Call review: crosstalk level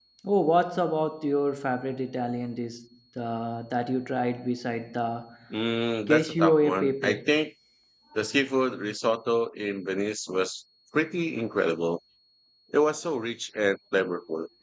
present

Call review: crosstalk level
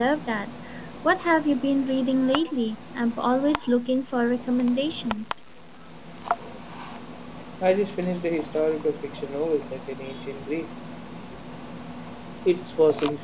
none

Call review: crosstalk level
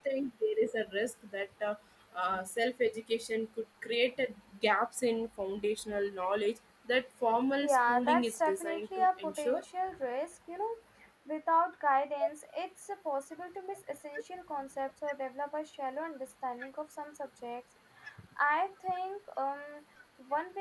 present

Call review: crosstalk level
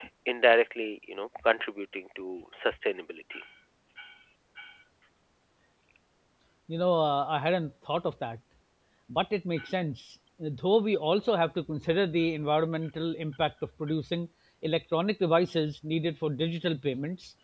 none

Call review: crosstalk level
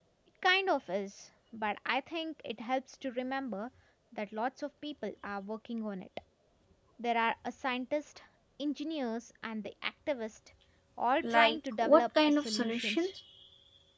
present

